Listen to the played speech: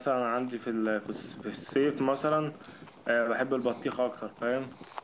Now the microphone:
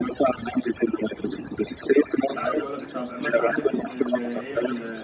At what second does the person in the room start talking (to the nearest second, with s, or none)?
2 s